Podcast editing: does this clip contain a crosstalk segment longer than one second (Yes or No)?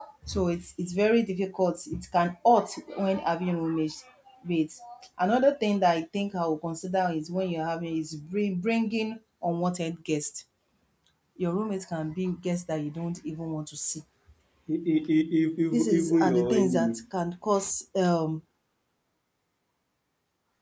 Yes